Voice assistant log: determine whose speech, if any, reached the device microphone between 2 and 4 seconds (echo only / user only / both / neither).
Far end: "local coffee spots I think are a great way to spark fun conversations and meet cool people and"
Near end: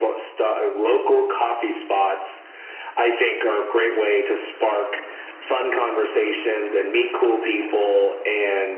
echo only